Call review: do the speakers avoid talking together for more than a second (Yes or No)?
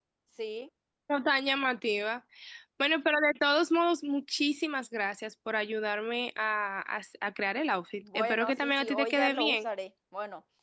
No